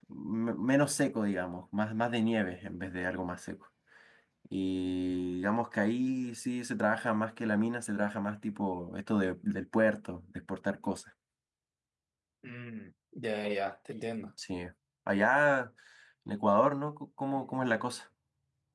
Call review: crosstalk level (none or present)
none